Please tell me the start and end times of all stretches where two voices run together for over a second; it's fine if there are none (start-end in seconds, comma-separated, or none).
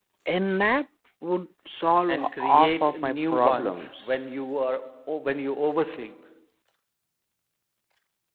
2.1-4.3